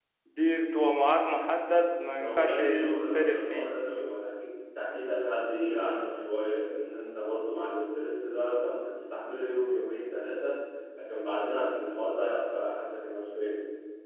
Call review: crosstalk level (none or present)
present